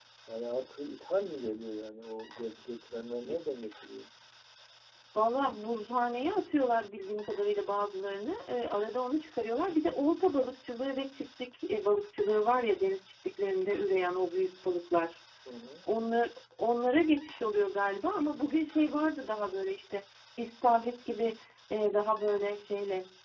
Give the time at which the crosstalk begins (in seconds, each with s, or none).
none